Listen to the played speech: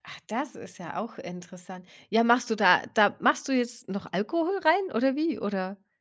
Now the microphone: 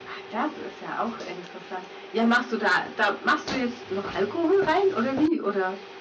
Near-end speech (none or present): none